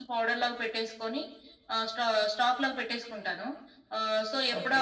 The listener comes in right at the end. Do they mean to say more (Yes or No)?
No